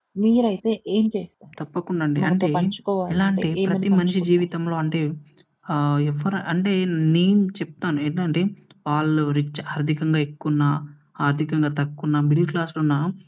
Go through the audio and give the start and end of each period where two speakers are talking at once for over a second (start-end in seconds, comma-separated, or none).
3.1-4.5